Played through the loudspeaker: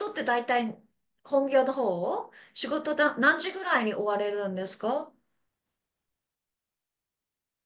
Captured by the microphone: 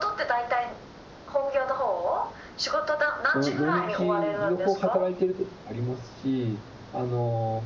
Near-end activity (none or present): present